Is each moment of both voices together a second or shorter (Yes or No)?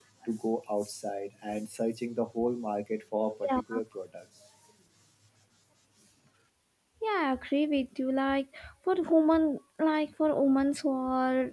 Yes